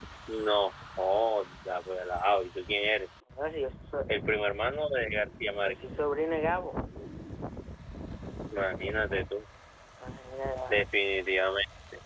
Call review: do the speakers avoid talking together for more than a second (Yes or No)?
Yes